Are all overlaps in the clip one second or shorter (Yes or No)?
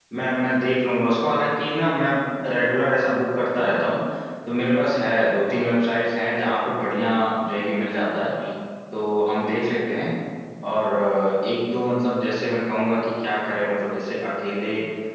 Yes